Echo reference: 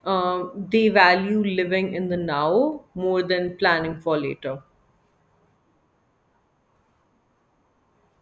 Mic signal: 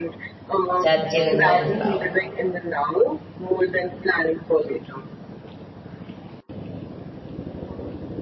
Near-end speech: present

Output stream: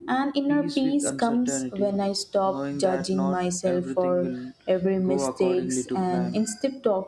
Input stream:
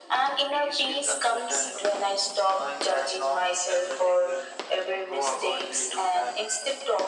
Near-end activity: none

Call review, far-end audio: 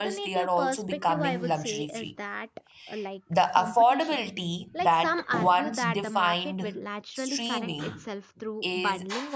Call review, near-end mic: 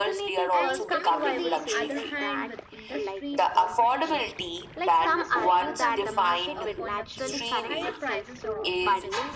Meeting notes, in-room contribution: present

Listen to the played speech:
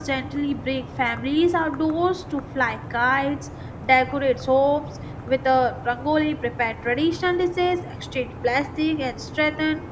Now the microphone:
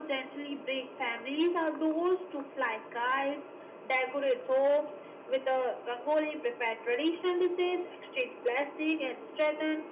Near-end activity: none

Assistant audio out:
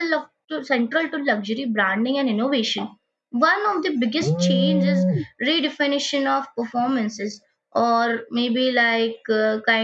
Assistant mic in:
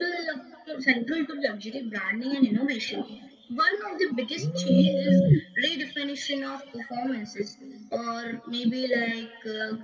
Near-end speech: none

